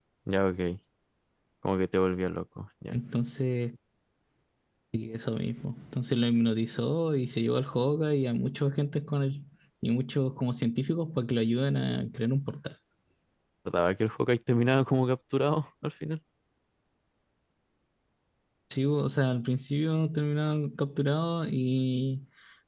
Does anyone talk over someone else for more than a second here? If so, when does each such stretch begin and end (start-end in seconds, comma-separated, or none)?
none